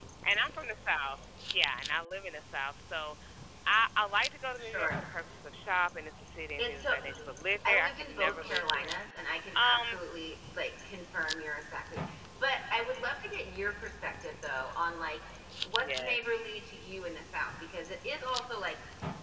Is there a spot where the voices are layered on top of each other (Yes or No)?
Yes